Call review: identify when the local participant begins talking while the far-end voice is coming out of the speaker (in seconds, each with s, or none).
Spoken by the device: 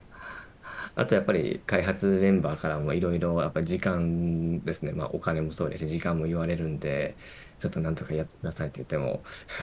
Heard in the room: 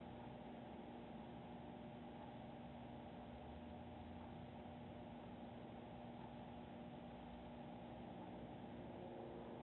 none